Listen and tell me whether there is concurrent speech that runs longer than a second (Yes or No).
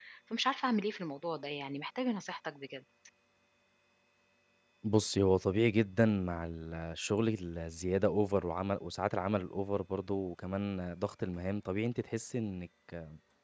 No